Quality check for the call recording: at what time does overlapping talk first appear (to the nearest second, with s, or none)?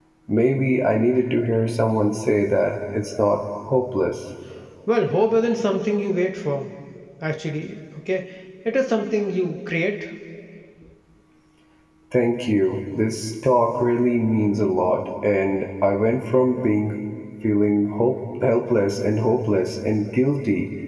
none